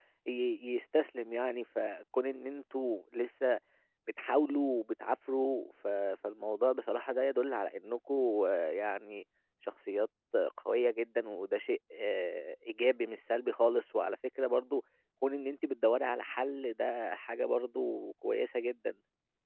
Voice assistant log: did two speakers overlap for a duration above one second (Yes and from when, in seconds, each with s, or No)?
No